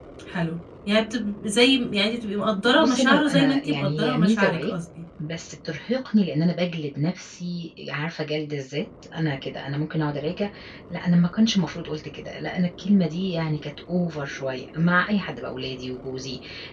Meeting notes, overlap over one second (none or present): present